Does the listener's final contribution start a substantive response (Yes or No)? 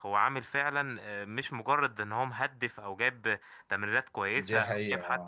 Yes